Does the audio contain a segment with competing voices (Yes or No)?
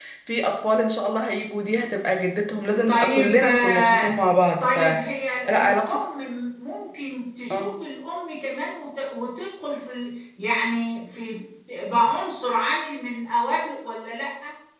Yes